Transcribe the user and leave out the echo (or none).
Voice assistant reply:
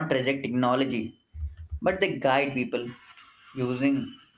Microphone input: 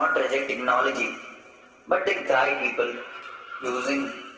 none